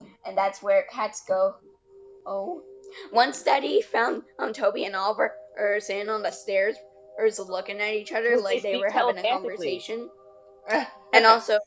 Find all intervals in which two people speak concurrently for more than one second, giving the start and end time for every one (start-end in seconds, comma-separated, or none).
8.3-9.8